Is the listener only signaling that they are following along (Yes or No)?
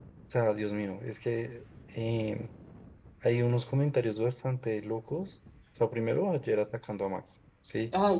No